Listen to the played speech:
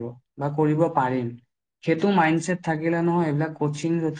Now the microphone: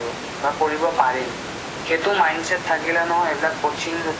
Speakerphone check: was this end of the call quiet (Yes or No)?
Yes